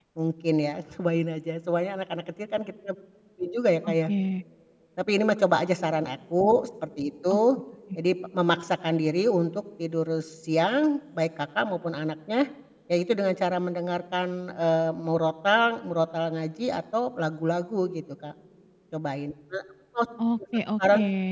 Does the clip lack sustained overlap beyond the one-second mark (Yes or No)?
Yes